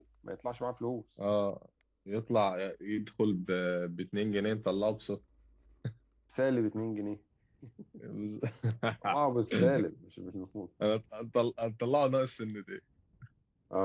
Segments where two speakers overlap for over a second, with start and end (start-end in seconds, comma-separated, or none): none